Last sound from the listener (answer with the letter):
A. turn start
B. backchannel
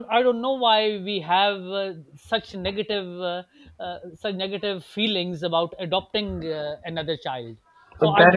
A